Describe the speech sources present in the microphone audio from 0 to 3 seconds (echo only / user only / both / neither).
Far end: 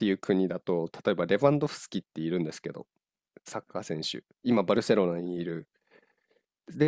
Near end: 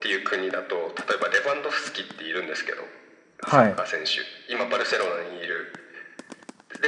echo only